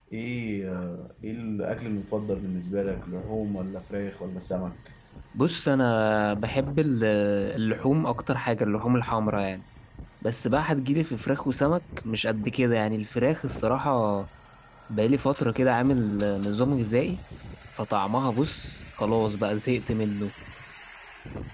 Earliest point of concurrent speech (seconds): none

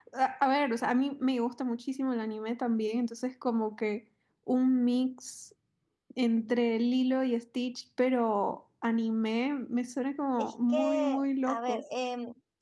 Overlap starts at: 10.4 s

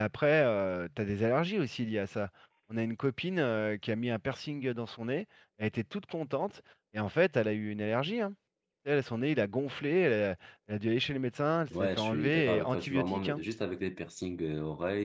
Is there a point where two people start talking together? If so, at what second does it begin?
11.7 s

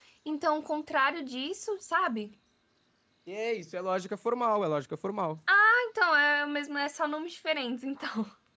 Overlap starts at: none

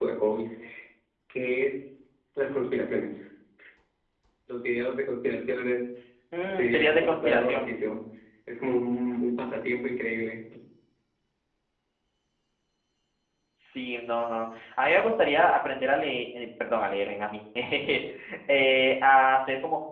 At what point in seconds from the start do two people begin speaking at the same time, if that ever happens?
6.4 s

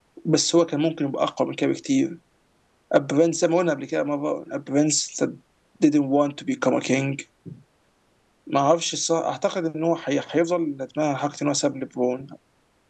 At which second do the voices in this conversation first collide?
none

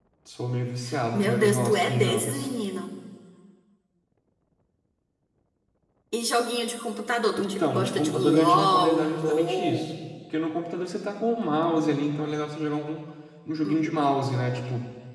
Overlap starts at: 1.1 s

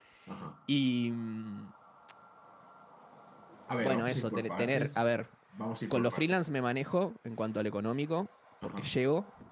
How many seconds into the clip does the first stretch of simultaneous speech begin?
3.8 s

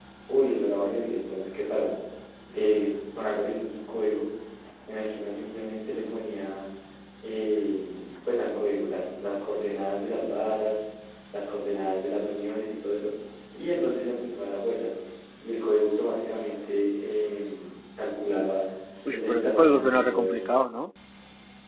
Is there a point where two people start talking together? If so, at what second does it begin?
19.1 s

